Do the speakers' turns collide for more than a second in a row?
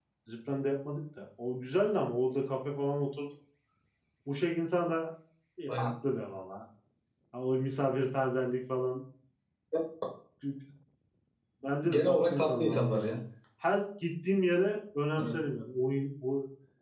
Yes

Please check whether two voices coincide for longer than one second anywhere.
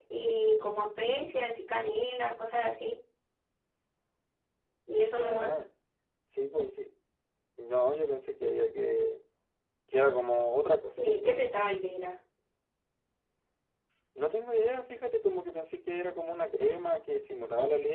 No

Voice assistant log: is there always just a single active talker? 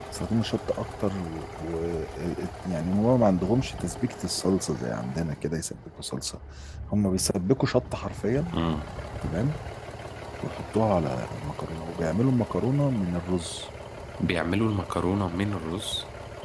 Yes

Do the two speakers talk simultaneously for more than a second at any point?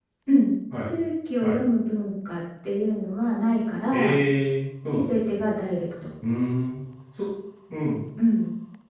No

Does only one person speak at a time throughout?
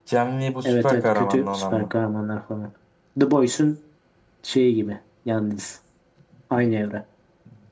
No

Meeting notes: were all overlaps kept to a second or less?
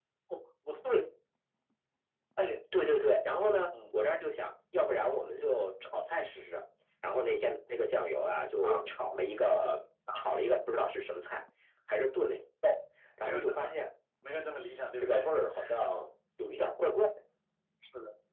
Yes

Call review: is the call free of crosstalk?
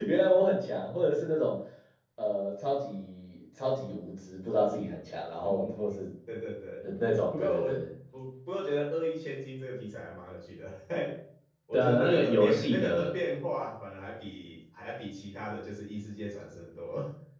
No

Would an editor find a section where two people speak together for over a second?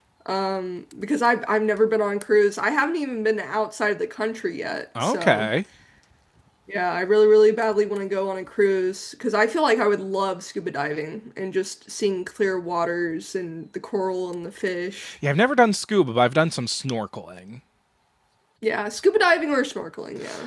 No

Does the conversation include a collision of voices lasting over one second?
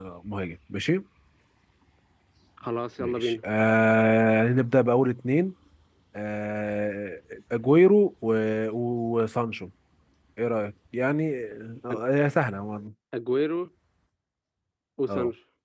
No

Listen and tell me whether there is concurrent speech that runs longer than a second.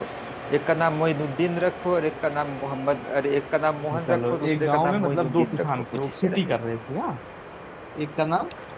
Yes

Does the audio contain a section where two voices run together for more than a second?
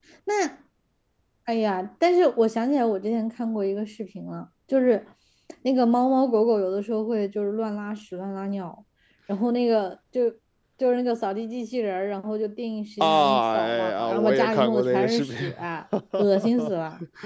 Yes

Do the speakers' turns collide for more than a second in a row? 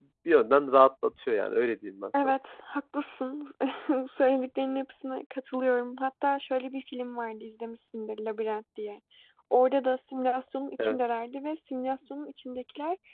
No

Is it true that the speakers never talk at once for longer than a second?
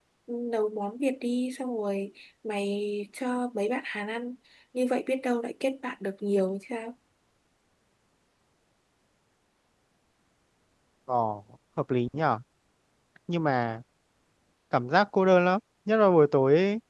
Yes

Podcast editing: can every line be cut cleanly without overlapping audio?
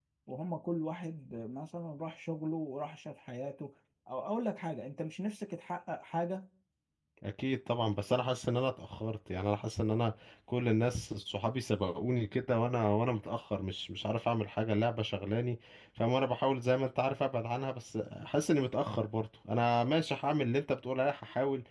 Yes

